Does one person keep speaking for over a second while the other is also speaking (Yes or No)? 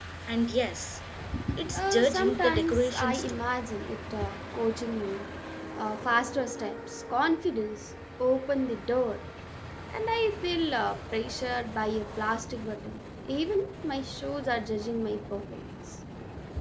Yes